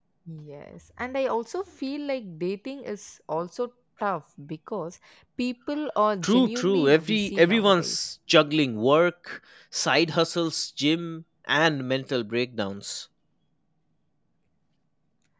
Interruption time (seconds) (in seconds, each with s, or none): 6.2 s